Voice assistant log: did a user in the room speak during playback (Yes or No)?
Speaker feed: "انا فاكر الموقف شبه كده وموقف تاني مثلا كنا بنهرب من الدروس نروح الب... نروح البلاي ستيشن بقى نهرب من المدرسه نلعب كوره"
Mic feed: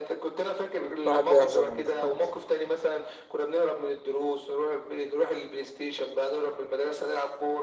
Yes